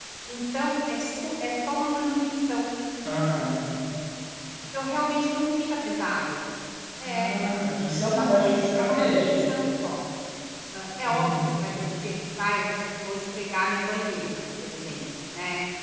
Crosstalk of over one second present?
Yes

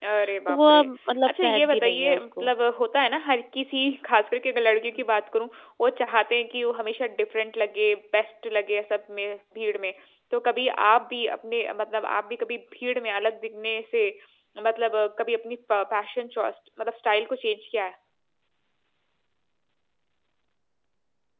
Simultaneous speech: Yes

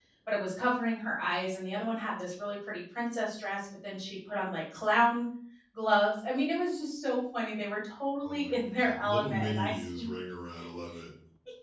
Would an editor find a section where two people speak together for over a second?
Yes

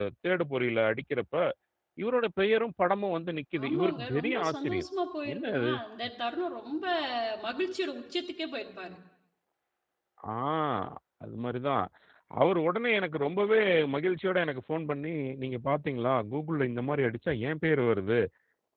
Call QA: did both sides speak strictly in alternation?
No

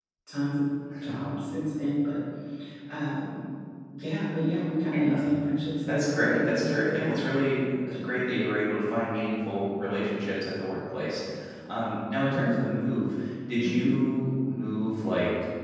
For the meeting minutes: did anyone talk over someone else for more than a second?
Yes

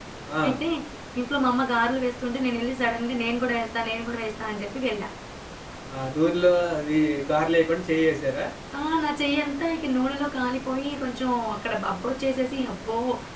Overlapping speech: No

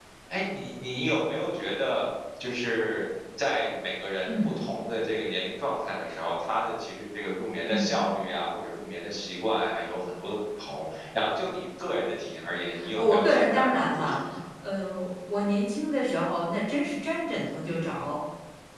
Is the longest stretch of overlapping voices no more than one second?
No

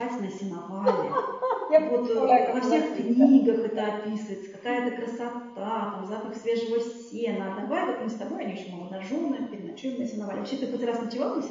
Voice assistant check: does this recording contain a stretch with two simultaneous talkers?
Yes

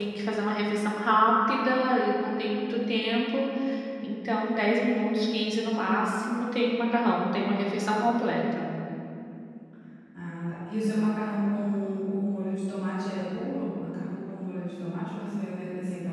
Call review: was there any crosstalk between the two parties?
No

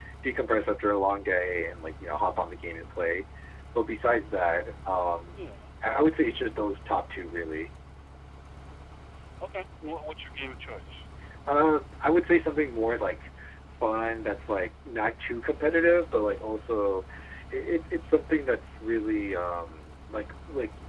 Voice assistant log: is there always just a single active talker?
Yes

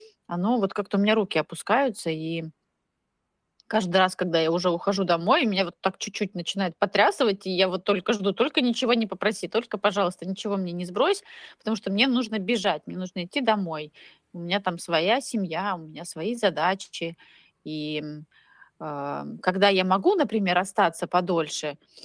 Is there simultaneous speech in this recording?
No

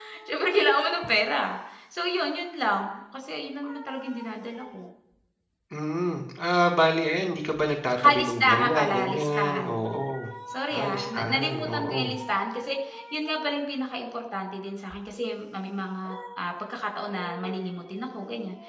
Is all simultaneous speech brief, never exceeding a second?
No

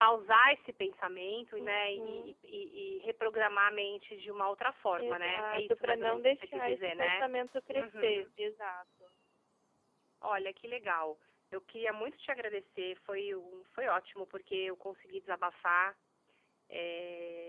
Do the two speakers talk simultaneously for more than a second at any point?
Yes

